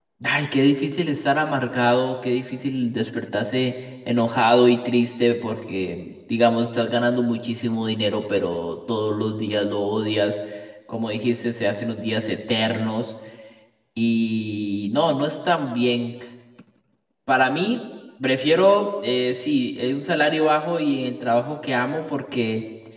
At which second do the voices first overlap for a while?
none

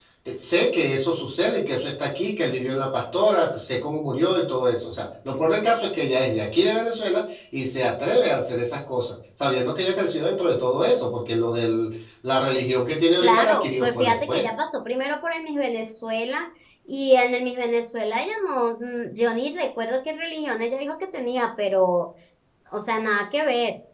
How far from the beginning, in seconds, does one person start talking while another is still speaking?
13 s

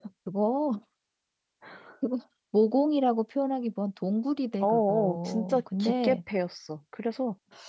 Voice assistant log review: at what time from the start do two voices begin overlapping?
5 s

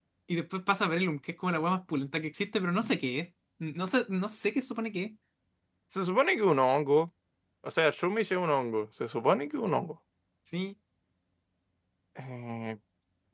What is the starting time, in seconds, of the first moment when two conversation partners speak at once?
none

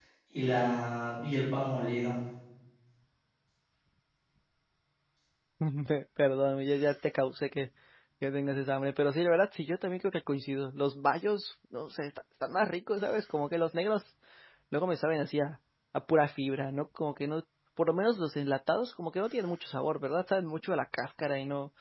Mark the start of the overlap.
none

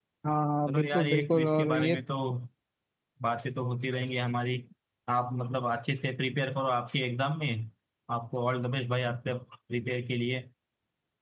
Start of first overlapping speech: 1 s

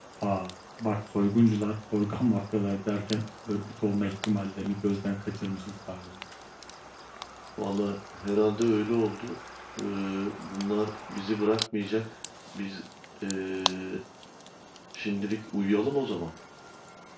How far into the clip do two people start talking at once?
none

